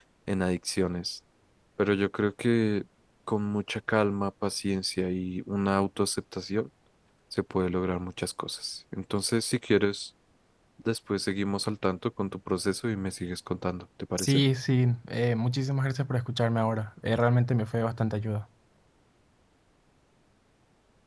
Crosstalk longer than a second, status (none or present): none